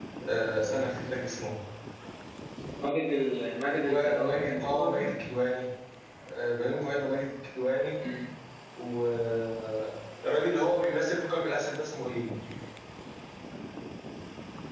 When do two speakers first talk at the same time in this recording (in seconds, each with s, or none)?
3.7 s